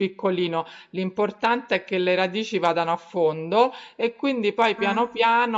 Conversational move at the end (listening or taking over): listening